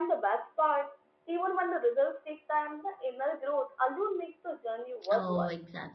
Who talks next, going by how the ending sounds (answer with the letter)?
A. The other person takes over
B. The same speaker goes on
A